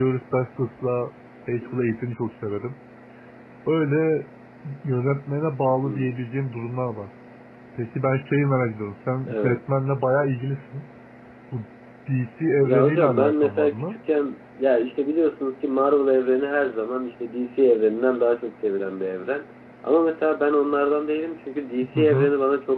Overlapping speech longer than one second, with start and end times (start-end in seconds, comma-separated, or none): 12.6-14.0